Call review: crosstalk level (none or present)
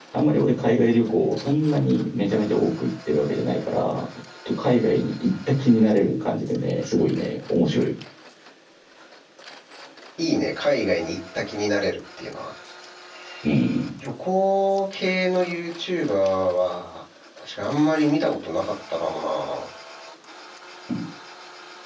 none